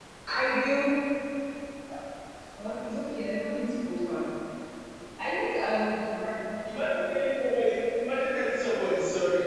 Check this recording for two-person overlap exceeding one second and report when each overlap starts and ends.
none

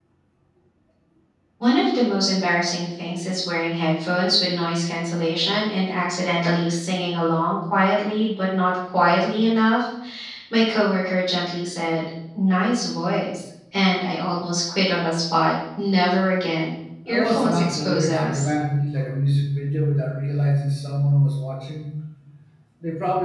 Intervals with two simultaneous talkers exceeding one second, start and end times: 17.1-18.5

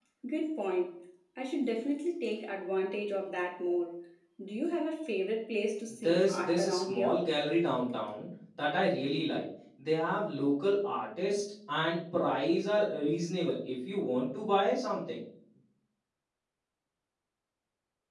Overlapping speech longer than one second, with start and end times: 5.9-7.2

